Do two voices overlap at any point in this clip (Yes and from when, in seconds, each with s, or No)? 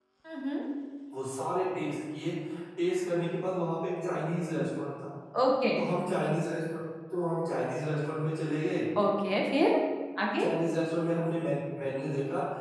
No